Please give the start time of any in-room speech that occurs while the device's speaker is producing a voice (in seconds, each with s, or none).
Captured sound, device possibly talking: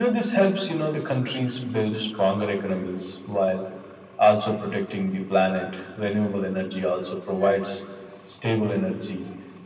none